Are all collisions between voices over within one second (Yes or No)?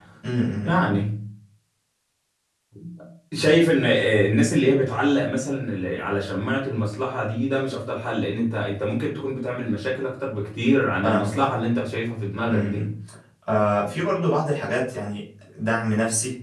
Yes